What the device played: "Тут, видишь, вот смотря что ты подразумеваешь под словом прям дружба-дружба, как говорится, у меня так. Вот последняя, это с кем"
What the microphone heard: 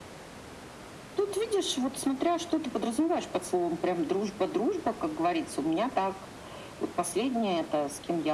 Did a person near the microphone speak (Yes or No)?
No